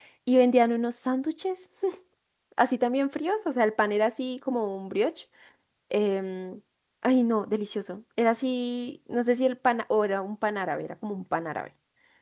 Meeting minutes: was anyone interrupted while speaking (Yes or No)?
No